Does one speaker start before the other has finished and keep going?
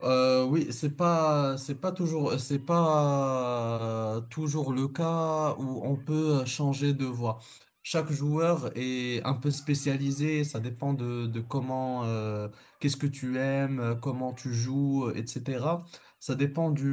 No

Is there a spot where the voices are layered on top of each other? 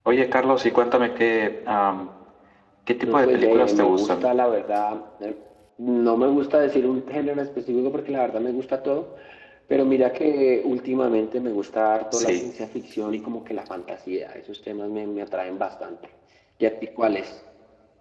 Yes, from 3.0 s

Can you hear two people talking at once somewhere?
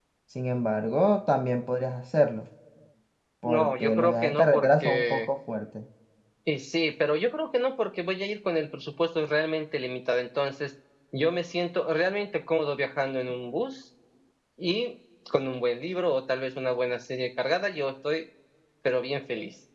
Yes, from 3.5 s

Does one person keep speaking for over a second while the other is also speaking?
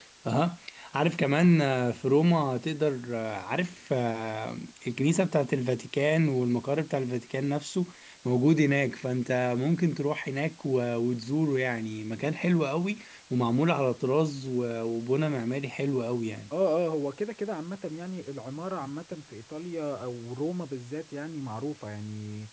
No

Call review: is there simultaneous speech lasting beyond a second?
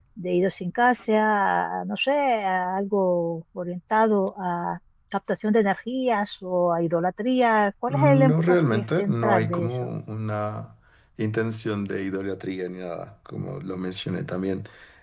Yes, from 7.9 s

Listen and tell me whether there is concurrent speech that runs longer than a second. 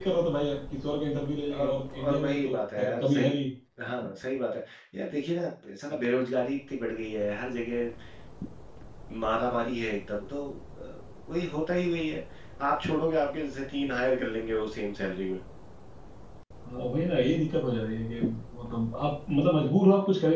Yes, from 1.5 s

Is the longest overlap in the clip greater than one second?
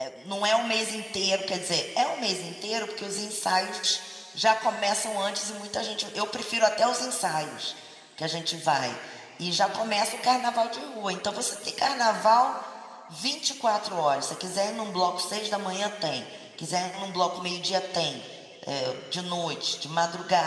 No

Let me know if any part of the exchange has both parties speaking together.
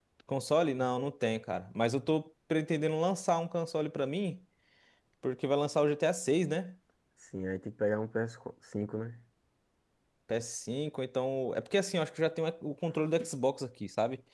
No

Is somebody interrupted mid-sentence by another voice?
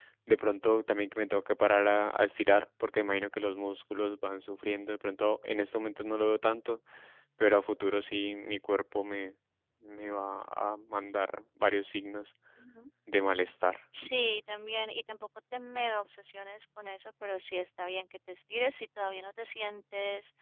No

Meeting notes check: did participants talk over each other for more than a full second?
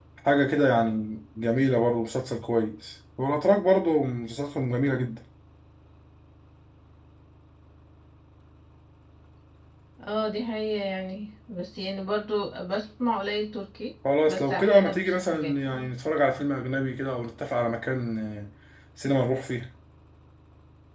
Yes, from 14.0 s

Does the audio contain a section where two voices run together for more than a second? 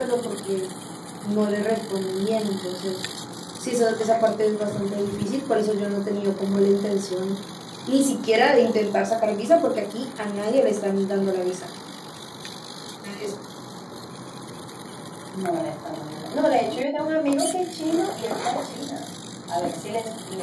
No

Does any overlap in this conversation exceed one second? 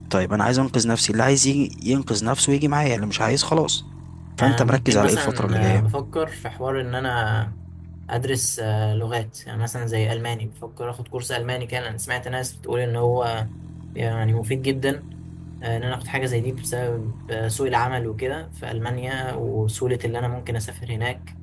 Yes, from 4.4 s

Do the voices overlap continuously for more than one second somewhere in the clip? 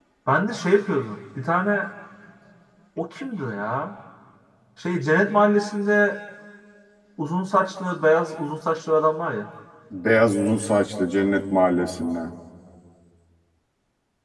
No

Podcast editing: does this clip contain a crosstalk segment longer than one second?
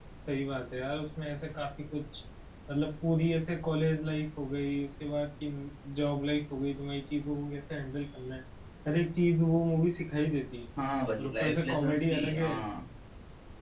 Yes, from 11.2 s

